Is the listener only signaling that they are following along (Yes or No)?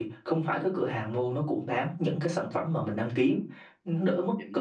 Yes